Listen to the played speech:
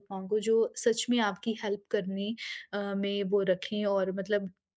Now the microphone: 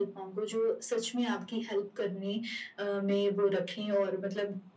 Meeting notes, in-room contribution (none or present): none